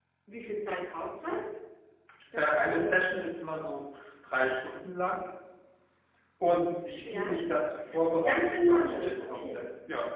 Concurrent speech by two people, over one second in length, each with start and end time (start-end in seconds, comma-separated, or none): 7.9-9.6